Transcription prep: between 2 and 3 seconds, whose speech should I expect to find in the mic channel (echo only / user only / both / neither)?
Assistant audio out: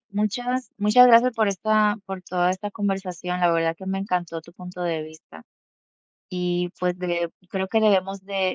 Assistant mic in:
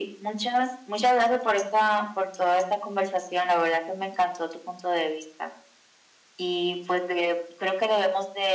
echo only